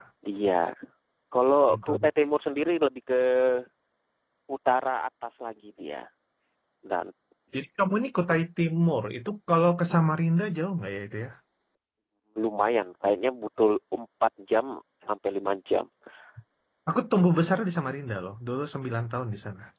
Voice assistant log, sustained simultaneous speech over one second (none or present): none